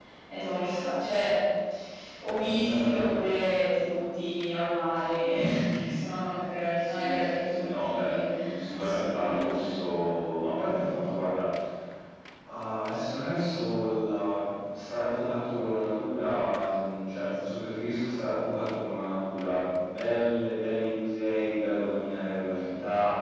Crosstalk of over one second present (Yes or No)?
Yes